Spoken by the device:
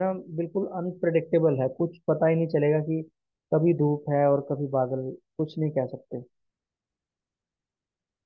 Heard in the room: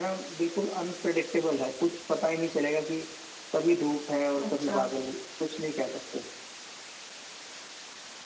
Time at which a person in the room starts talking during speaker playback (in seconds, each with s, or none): 4.4 s